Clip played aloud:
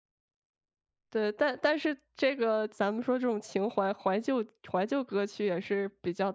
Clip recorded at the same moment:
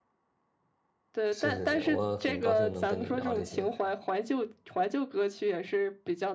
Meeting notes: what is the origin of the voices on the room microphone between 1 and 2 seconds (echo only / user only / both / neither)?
both